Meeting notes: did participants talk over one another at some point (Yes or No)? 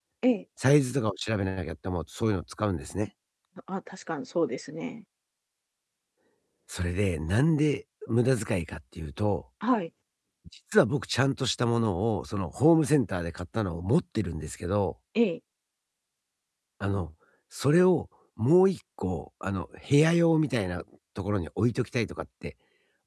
No